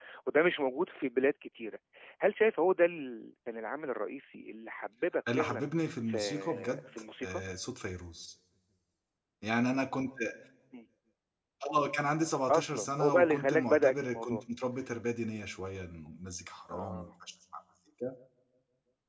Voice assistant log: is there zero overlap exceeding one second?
No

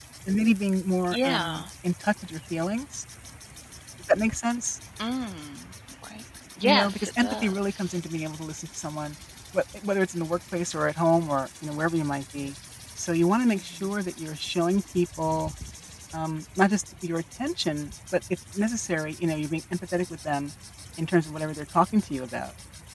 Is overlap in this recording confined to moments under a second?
No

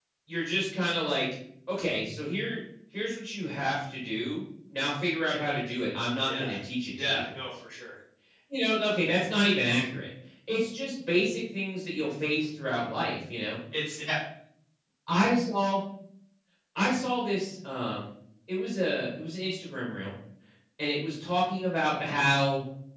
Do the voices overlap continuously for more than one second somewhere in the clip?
No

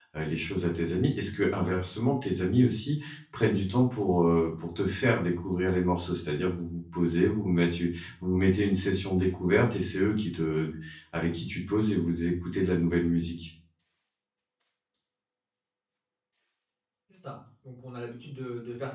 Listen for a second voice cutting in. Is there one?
No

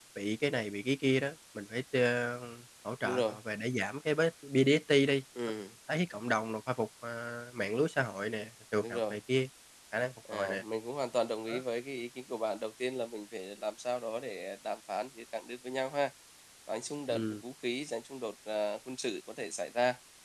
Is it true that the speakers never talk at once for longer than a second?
Yes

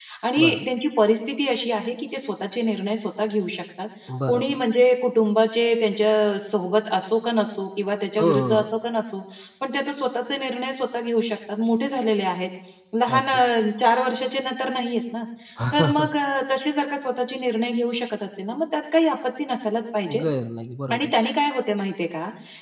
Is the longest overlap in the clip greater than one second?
No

